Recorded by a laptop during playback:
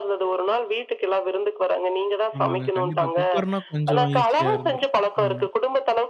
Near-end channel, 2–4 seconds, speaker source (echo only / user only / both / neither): both